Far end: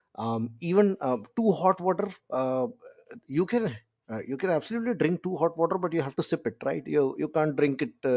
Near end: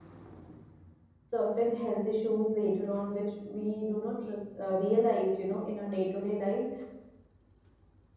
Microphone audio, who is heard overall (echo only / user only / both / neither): user only